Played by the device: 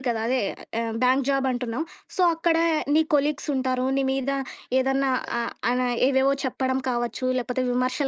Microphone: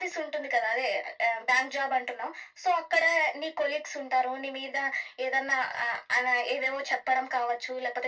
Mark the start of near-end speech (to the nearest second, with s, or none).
none